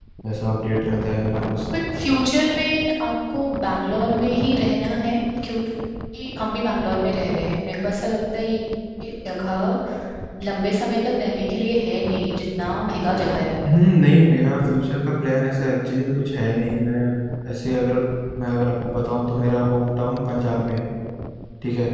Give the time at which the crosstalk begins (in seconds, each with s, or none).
none